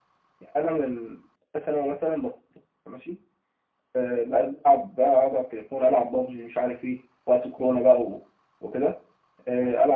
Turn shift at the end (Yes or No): No